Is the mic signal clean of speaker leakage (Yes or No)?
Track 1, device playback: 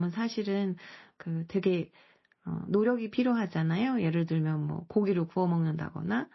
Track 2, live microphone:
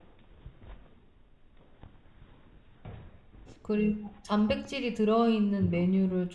Yes